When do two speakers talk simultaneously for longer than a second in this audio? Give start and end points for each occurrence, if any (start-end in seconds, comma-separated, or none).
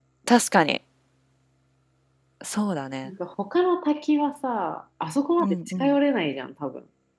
none